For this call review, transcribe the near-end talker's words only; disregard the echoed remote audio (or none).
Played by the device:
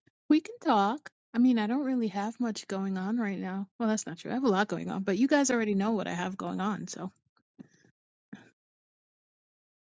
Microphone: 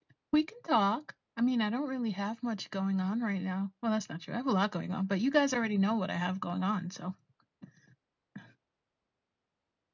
none